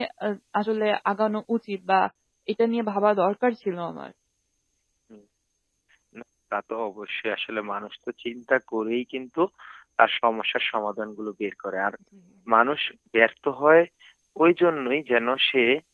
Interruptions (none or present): none